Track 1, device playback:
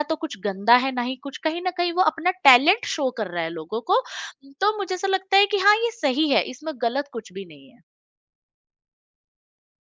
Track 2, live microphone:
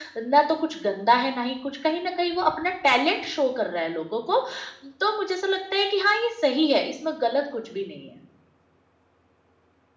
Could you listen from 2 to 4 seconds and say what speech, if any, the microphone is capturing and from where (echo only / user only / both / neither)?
echo only